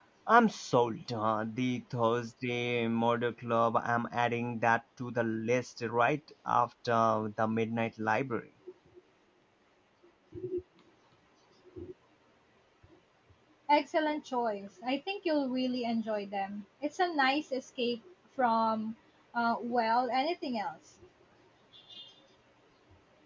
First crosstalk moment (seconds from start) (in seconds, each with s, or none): none